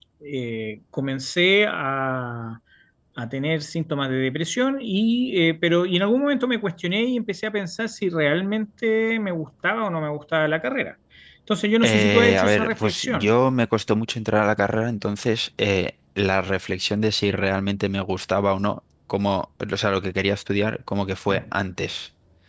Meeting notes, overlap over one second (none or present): present